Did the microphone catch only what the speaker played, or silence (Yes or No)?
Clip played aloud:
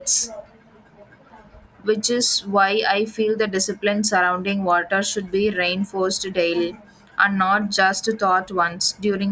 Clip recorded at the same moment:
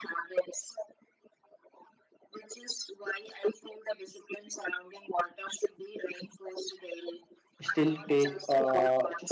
No